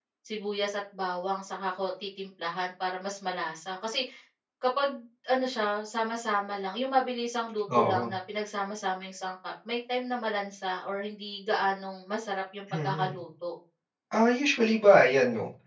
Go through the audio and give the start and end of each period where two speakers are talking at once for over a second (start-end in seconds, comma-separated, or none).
none